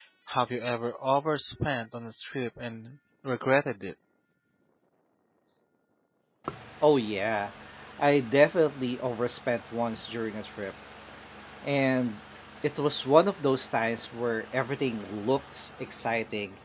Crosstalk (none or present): none